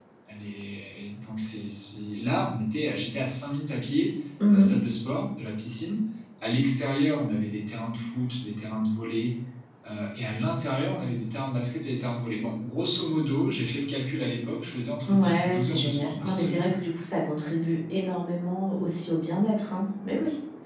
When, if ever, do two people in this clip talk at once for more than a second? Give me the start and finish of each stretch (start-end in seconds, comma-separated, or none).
15.1-16.7